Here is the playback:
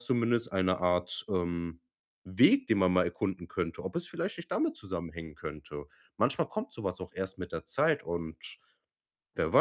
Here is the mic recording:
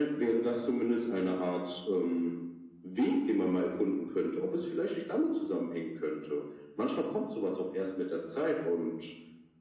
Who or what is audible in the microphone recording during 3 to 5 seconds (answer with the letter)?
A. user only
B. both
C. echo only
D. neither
C